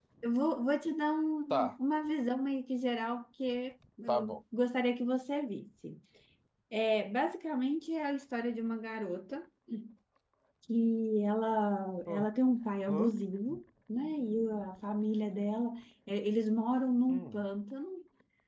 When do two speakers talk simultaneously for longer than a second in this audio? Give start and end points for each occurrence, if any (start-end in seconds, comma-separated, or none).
none